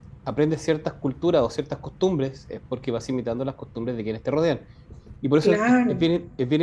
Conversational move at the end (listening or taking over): listening